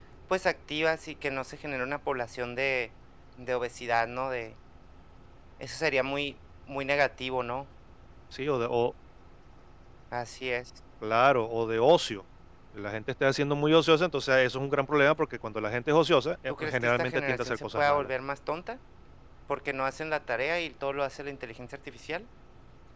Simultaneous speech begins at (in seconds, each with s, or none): 16.5 s